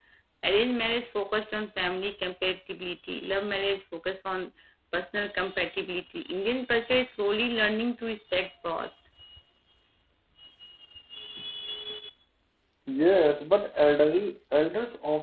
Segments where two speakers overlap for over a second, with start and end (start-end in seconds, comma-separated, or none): none